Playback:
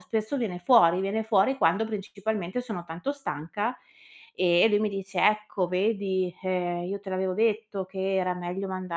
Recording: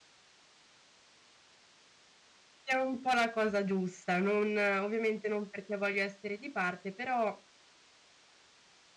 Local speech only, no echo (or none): è un po' la cosa giusta, non ovviamente non perché voglio essere di parte, però,